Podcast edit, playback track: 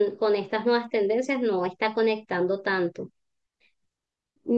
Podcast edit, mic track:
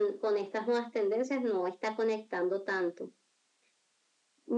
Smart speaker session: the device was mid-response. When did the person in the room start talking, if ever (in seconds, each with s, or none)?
none